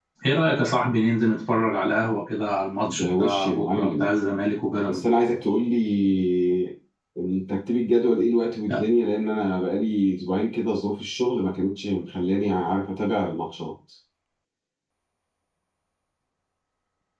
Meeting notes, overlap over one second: present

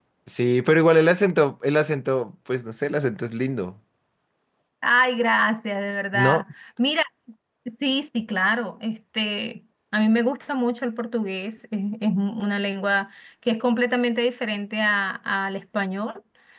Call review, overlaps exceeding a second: none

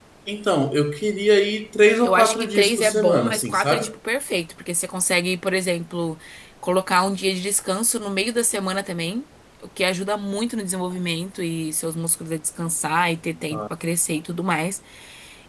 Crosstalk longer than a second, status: present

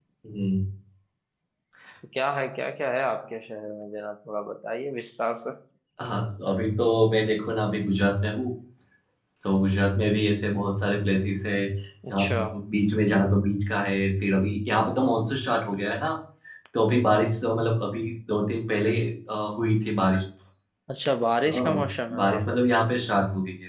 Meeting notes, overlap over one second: none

